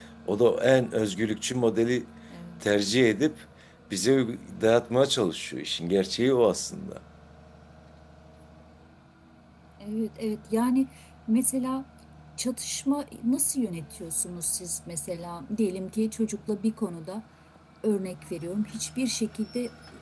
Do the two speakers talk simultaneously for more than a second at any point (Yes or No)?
No